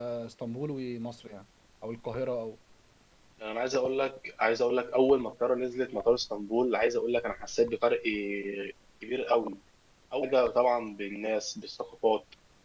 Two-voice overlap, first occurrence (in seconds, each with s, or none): none